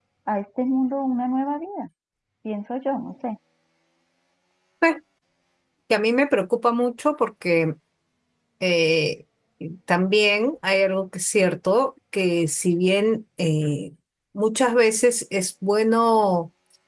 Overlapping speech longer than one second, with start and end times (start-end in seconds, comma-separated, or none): none